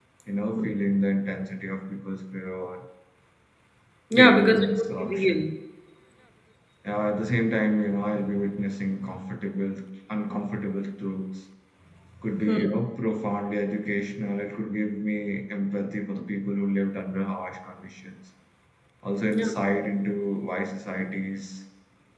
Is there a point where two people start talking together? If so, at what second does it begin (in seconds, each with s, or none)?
4.2 s